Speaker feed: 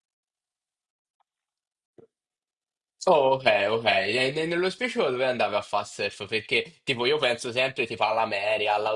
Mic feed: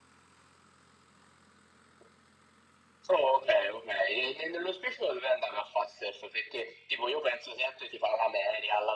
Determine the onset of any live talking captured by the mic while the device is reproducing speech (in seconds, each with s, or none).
none